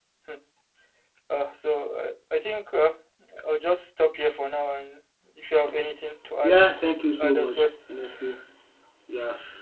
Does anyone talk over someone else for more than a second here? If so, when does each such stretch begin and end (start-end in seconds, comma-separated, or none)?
6.4-7.7